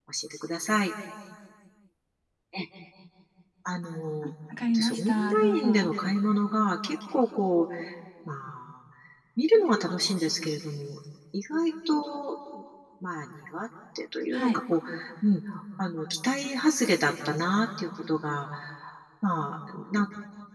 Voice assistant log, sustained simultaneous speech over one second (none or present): present